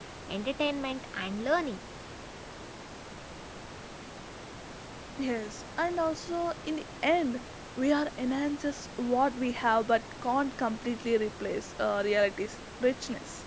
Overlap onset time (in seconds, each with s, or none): none